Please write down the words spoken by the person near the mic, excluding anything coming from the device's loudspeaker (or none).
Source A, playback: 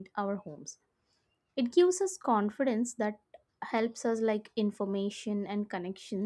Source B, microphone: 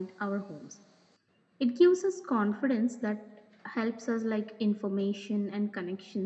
none